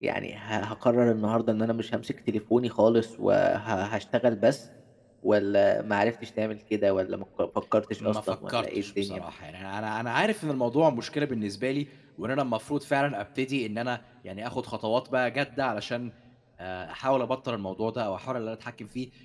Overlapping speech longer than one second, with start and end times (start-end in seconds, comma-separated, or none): 8.0-9.2